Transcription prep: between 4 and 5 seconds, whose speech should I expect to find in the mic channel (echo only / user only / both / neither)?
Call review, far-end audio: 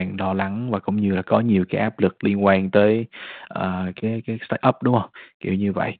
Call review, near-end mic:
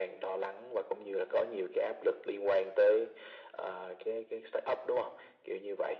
echo only